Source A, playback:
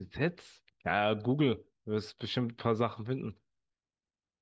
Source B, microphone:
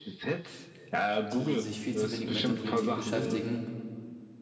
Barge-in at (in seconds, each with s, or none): 1.3 s